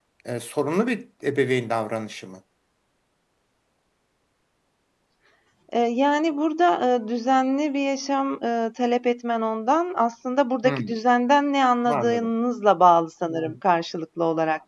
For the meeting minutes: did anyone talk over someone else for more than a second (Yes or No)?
No